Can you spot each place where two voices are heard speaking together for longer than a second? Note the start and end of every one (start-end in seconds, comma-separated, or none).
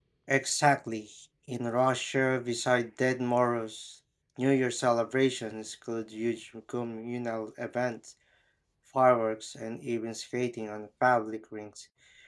none